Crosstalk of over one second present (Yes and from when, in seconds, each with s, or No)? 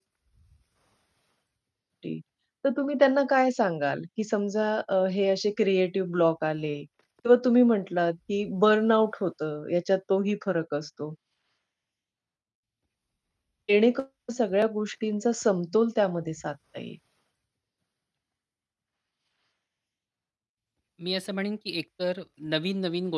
No